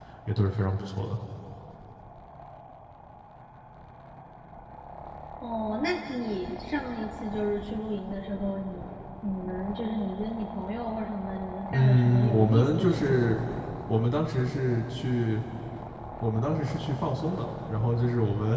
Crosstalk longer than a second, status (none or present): present